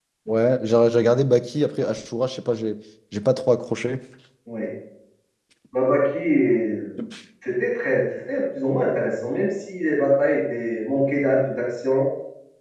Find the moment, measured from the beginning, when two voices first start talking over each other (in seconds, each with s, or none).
none